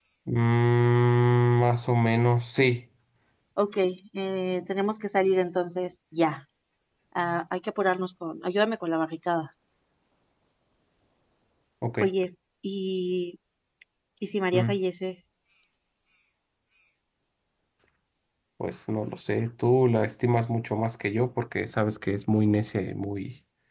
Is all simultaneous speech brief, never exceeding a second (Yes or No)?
Yes